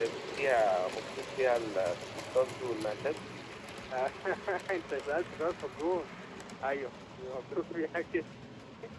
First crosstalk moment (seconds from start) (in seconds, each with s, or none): none